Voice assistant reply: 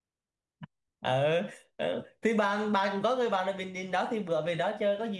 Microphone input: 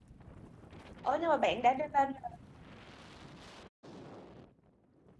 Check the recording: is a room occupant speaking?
Yes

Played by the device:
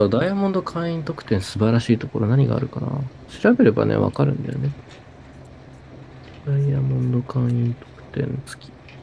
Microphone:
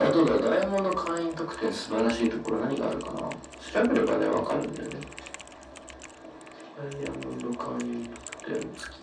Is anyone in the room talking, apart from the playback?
No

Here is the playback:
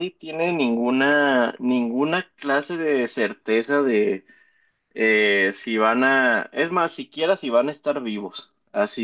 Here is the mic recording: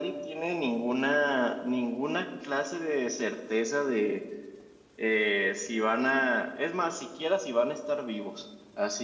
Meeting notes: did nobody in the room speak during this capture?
Yes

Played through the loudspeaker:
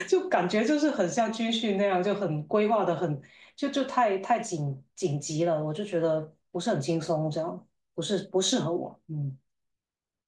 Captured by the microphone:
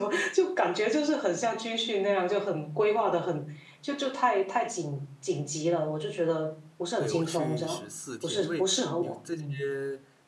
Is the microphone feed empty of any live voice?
No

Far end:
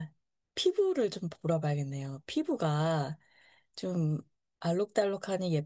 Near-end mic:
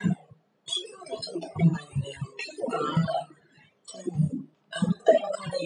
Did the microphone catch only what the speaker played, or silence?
No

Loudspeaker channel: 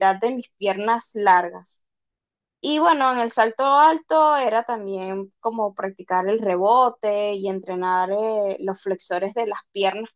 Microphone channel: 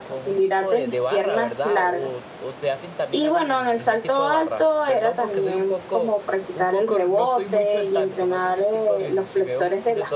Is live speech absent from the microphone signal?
No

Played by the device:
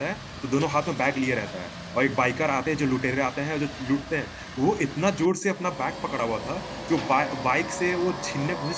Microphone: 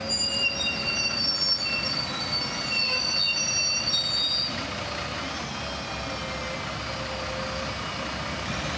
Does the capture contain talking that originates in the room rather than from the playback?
No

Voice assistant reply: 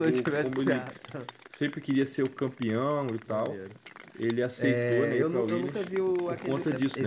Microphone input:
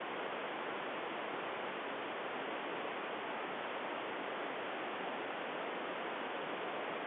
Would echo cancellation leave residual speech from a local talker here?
No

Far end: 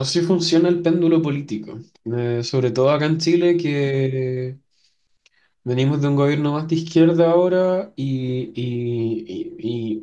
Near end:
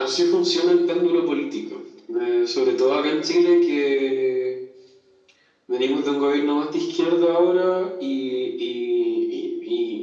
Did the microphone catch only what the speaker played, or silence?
Yes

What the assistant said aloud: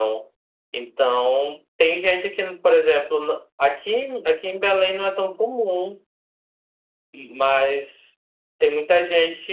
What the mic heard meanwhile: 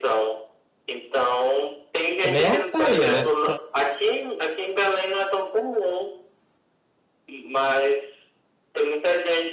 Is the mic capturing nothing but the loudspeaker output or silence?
No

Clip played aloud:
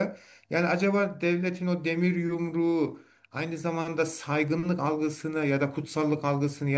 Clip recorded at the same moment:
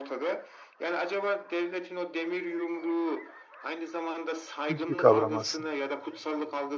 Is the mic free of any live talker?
No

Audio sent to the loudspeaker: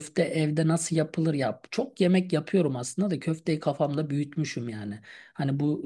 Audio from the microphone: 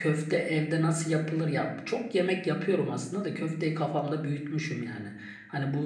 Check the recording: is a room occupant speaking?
No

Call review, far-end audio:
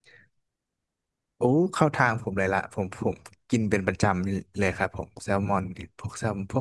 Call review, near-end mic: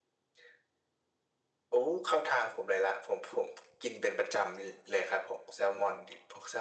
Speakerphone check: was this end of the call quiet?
Yes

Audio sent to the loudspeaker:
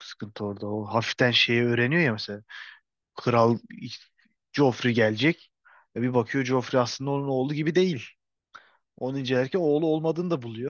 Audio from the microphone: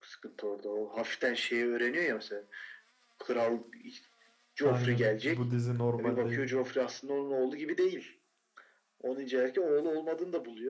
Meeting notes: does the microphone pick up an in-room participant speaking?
Yes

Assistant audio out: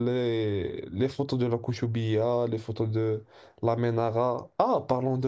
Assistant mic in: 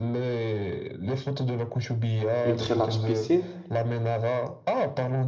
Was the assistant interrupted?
Yes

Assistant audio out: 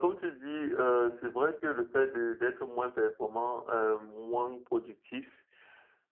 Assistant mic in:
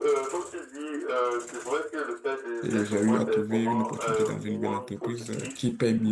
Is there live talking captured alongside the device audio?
Yes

